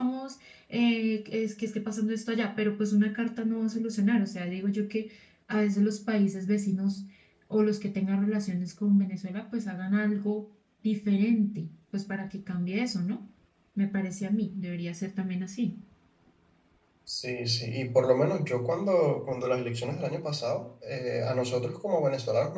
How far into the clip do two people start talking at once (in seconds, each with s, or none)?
none